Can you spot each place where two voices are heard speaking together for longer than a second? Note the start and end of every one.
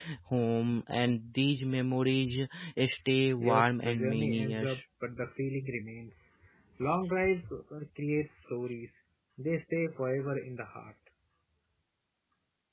3.4-4.8

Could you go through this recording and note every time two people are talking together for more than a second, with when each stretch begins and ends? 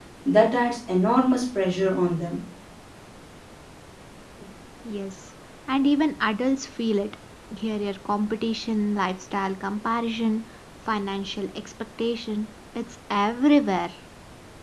none

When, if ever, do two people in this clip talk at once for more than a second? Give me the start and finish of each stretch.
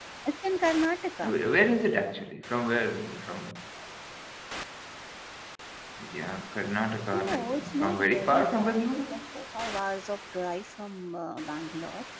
7.1-9.1

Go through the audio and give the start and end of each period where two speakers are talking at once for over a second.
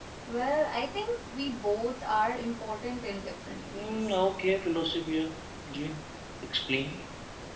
none

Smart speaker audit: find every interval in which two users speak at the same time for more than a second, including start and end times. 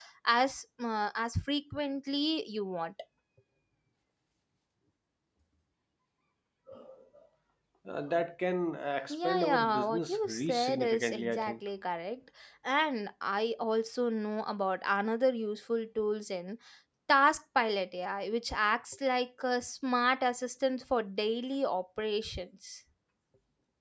9.1-11.5

